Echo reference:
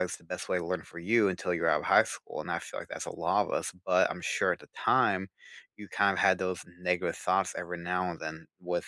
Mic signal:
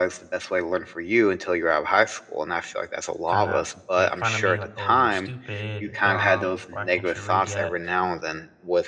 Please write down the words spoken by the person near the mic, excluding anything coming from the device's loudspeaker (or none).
kinda make fun of me, like, "Oh, you're stupid, you're dumb, like, why can't you read yet?"